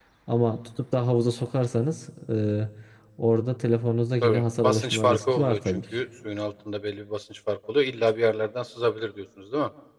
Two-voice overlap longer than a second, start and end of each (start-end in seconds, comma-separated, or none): 4.2-5.8